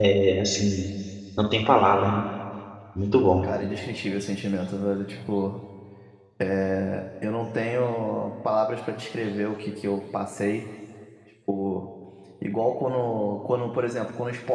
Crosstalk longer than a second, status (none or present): none